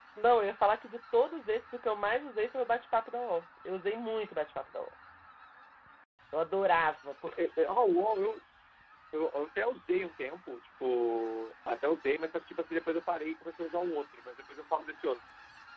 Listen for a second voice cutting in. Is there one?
No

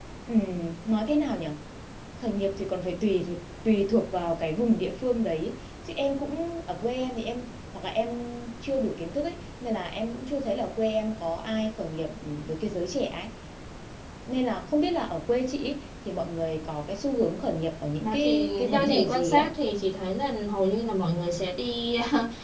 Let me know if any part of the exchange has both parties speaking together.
Yes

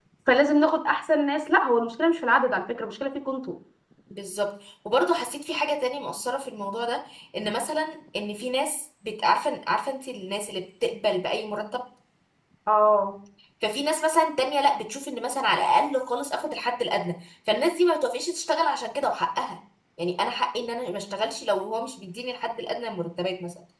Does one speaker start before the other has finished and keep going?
No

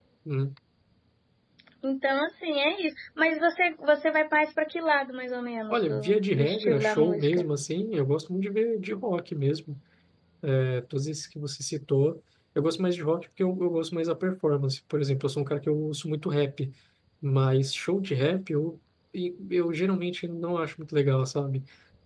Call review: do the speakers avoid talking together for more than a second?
No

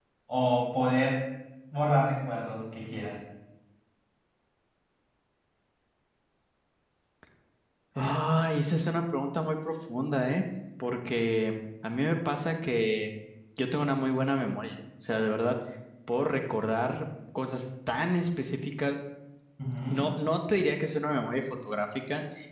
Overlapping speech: No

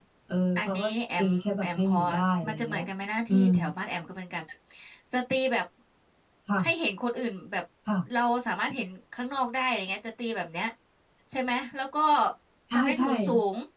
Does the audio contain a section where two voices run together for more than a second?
Yes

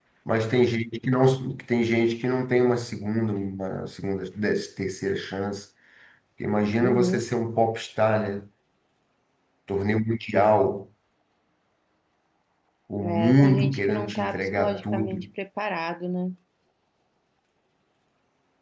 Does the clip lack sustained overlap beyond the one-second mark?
No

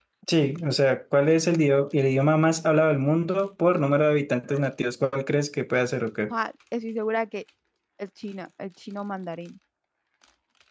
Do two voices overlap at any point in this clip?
No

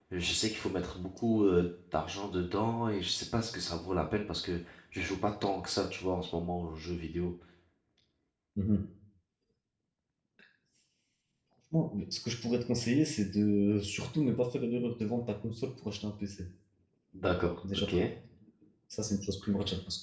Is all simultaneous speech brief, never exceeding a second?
Yes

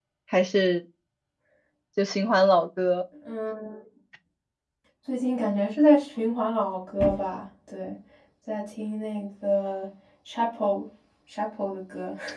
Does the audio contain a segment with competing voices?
No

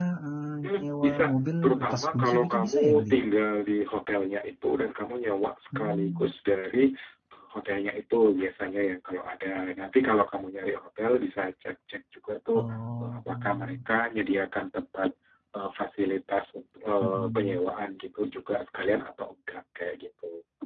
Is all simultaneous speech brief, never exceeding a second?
No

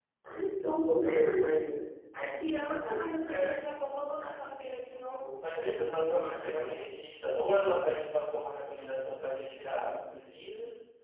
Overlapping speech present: Yes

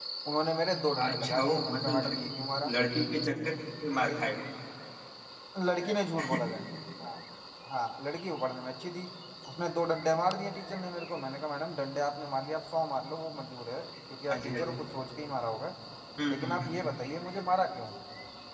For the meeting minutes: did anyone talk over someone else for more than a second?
Yes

